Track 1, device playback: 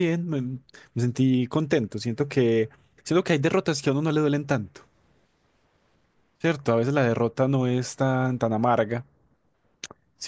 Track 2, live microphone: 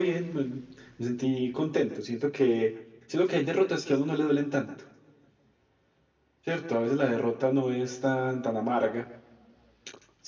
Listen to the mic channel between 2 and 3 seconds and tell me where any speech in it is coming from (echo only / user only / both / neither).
echo only